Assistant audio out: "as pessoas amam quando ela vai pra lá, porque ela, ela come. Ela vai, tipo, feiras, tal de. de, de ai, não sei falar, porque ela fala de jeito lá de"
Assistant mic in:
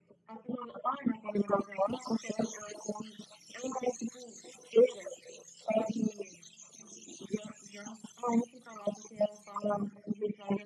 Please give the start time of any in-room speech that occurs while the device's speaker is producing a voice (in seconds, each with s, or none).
none